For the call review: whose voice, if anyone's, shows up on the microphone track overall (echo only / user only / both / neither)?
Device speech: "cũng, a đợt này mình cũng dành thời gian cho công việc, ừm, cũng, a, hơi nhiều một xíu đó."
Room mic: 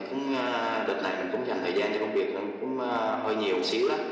echo only